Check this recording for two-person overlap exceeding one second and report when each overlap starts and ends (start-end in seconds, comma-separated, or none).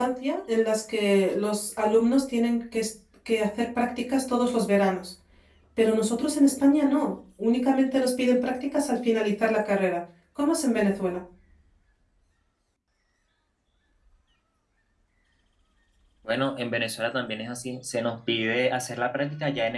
none